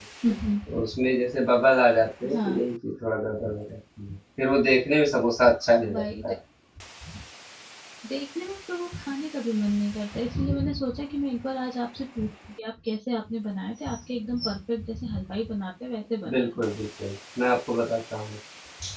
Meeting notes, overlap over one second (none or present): none